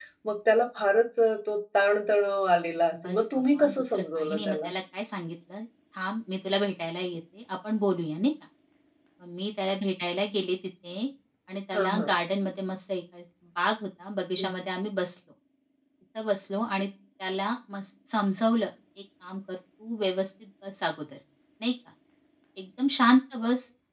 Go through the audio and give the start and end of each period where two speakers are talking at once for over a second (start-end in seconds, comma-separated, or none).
3.0-4.7